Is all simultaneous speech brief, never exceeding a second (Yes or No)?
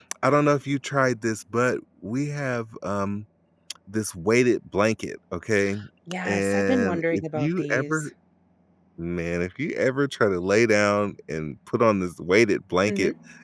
No